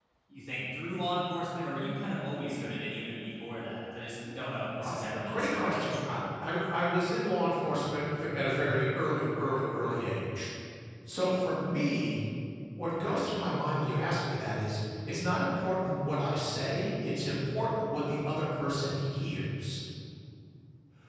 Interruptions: present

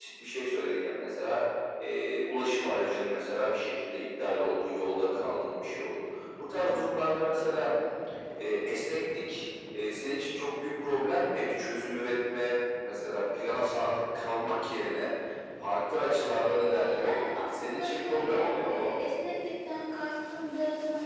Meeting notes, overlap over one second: present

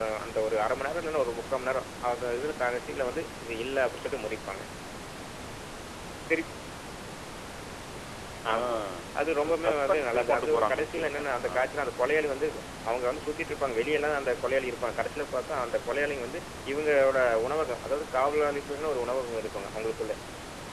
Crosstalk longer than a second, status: present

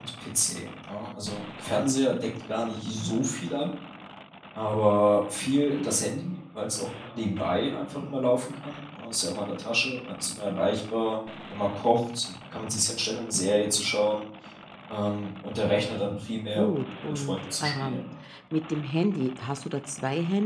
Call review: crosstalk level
present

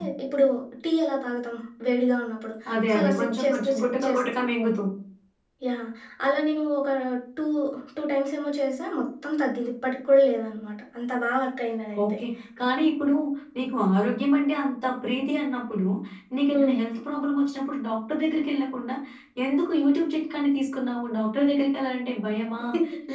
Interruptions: present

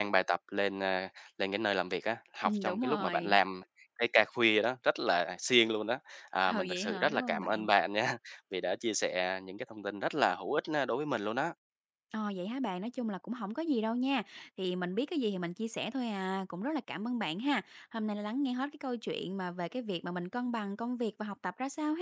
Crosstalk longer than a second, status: present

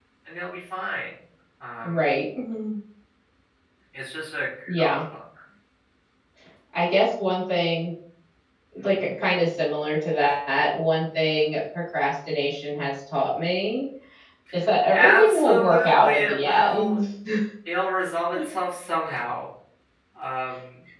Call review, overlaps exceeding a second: present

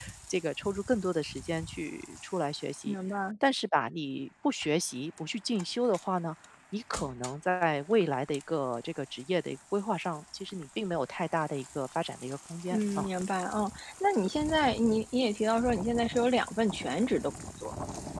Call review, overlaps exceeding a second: none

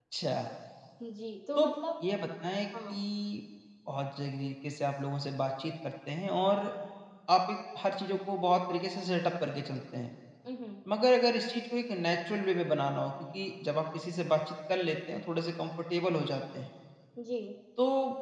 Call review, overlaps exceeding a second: none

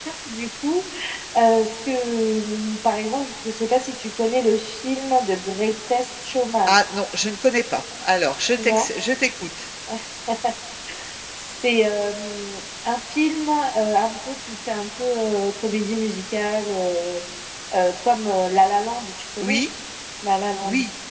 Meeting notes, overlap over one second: none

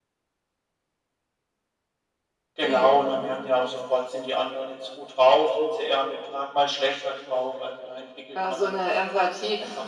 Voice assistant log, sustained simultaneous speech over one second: none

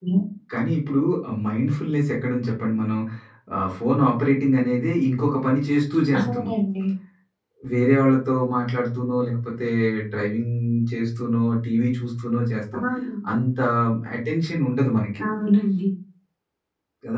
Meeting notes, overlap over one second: none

